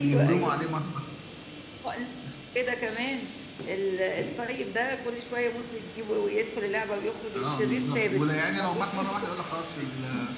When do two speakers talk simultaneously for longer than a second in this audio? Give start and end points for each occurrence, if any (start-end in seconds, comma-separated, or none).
7.3-9.1